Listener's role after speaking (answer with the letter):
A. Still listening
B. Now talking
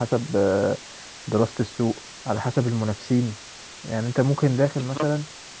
A